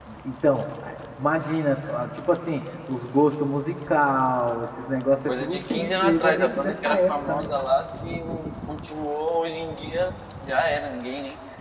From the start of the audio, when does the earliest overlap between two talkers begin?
5.3 s

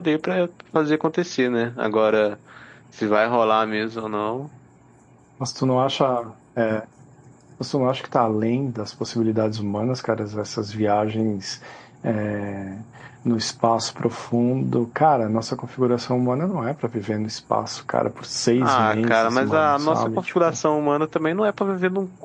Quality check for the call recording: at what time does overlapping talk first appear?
18.5 s

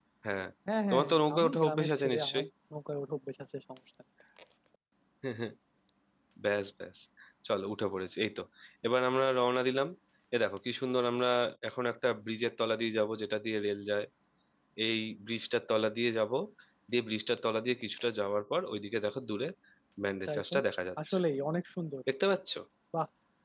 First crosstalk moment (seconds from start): 0.9 s

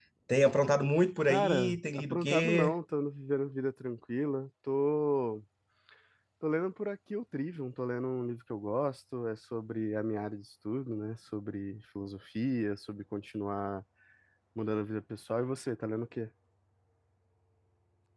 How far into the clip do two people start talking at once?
1.3 s

